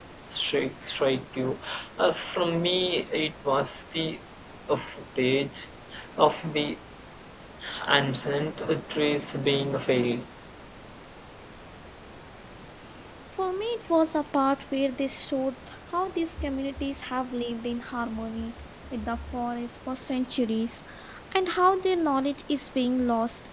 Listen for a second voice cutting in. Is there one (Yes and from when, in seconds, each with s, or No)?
No